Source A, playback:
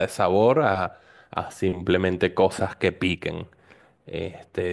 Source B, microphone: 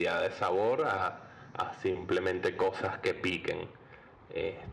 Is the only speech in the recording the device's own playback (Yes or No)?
Yes